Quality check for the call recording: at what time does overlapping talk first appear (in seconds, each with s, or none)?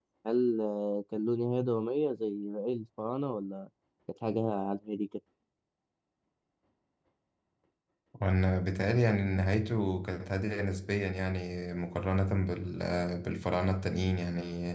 none